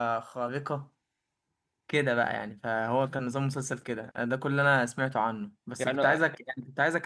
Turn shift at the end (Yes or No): No